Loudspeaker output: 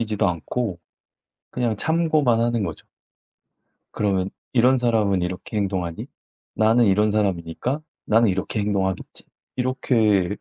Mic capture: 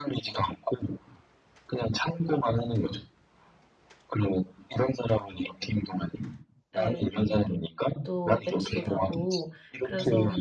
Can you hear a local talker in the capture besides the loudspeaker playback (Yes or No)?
Yes